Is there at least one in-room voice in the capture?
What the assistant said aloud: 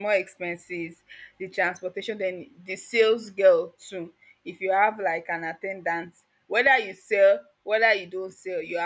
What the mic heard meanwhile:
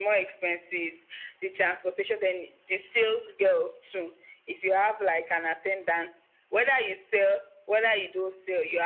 No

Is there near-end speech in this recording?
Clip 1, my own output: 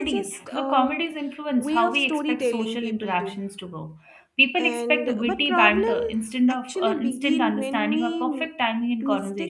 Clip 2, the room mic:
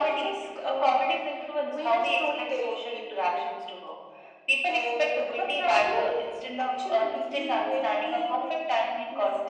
No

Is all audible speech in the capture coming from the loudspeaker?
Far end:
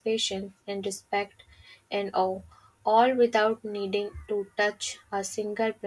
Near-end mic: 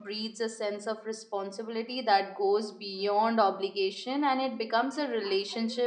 No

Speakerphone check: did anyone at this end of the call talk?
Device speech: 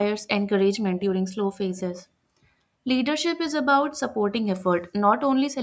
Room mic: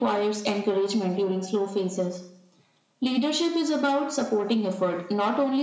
No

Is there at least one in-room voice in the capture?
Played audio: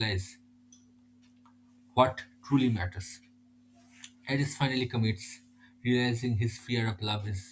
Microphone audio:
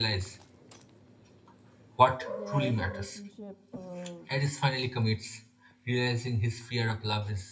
Yes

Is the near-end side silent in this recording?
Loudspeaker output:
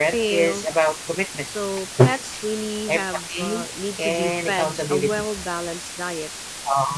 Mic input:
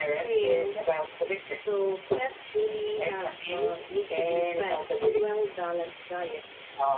Yes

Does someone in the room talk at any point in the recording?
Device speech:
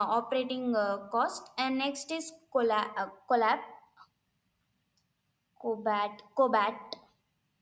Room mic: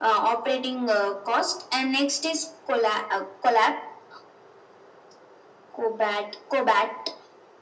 No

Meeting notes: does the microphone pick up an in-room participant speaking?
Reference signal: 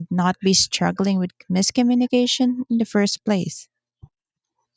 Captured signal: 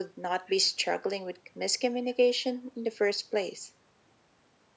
No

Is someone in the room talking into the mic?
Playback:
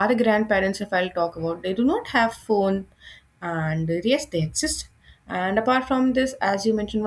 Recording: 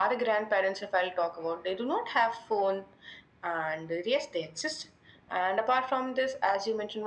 No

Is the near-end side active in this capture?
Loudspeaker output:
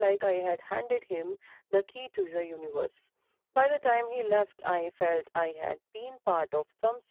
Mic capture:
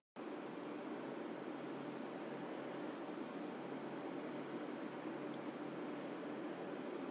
No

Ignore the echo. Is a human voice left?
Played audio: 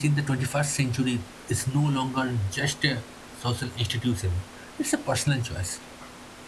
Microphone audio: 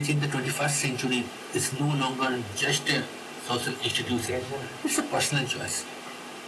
Yes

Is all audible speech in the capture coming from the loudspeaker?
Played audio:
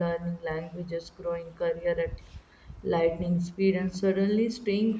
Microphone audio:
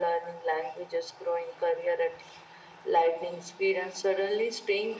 Yes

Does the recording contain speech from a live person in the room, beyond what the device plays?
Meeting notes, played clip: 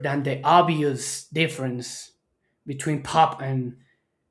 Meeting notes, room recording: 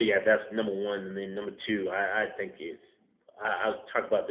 Yes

